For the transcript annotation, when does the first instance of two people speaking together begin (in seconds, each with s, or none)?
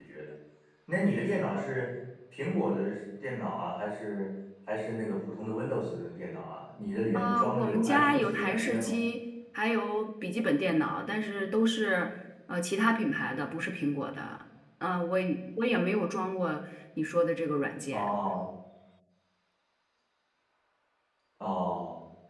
7.1 s